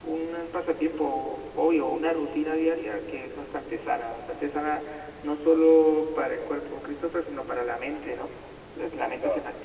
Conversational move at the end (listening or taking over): listening